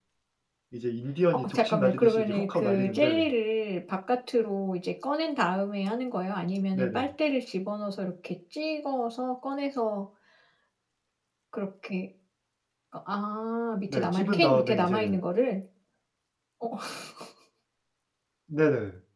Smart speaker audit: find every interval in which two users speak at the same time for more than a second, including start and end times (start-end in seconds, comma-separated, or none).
1.3-3.3, 13.9-15.2